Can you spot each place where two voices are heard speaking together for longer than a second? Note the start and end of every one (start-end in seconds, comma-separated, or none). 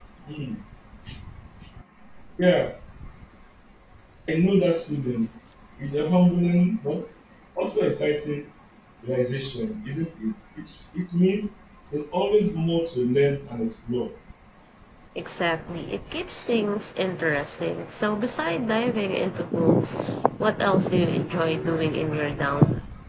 none